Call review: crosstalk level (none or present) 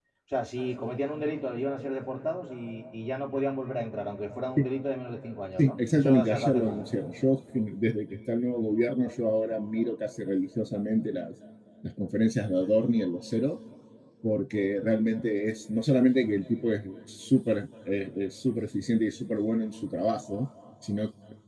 present